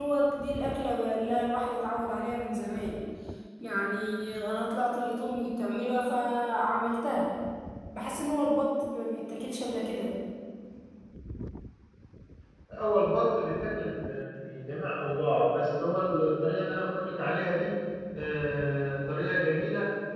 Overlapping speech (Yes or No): No